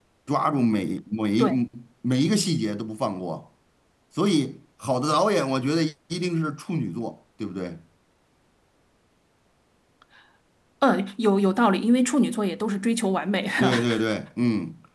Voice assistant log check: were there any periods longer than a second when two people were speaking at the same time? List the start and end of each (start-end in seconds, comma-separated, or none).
none